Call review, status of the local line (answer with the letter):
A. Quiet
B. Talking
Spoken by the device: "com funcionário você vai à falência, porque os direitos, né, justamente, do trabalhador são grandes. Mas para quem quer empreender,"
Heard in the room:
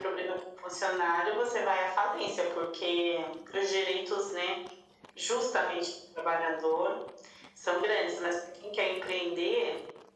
A